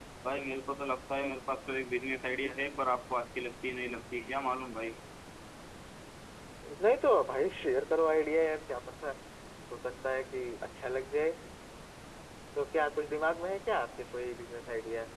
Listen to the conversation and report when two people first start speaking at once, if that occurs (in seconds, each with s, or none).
none